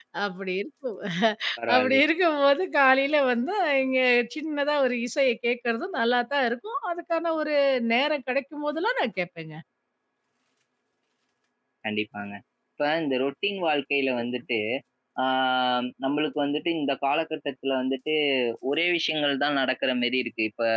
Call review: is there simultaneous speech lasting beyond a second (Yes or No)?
No